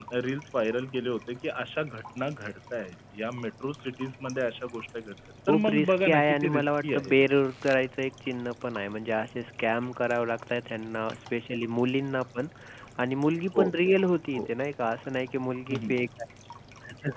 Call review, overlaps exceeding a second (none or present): present